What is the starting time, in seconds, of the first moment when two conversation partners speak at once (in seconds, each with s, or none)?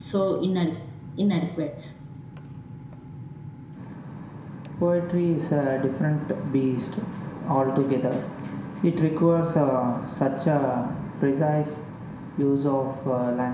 none